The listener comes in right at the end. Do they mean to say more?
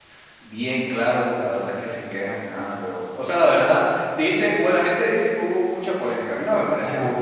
Yes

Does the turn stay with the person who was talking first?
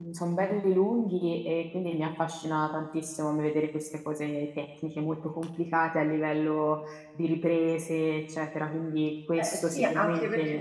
No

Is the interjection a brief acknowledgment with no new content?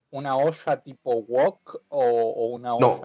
No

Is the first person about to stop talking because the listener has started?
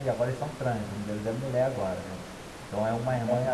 No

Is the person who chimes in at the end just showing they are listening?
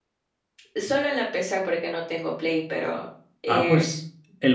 No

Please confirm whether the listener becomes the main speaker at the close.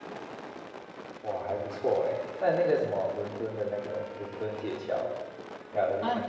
Yes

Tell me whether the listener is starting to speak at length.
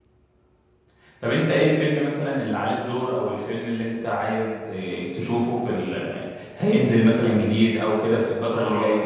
Yes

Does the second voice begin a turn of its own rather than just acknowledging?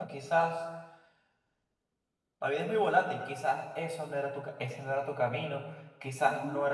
No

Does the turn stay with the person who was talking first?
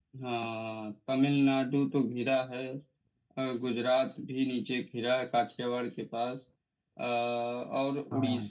Yes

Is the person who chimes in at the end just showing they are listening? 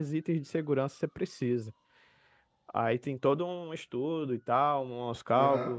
No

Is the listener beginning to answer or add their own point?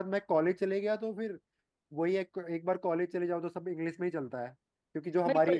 Yes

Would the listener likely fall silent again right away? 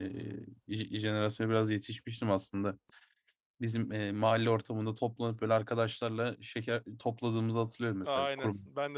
No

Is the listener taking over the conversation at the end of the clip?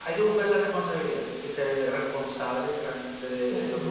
Yes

